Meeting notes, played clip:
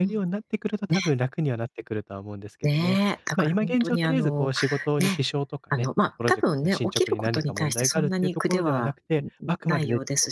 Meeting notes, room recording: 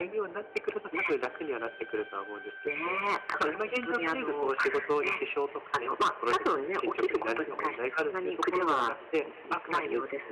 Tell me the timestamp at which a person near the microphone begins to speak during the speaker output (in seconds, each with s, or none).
none